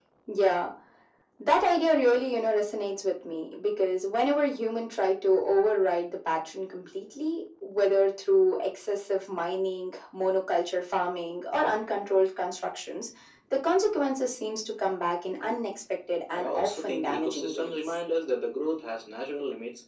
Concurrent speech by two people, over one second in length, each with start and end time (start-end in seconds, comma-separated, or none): 16.3-17.8